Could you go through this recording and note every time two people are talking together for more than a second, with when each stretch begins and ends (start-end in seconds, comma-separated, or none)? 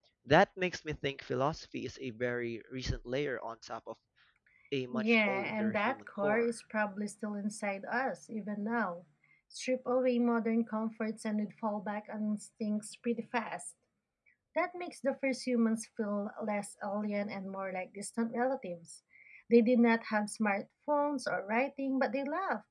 4.9-6.5